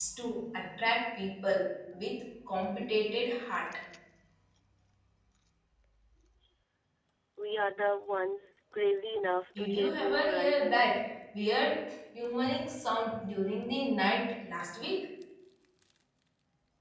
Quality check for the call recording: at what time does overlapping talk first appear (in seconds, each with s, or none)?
9.6 s